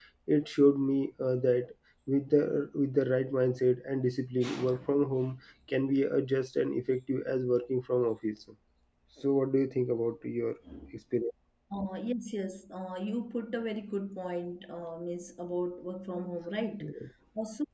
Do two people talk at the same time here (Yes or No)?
No